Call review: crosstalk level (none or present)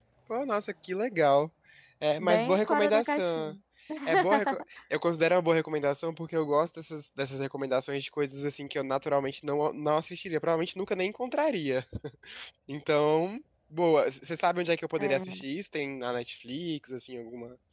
present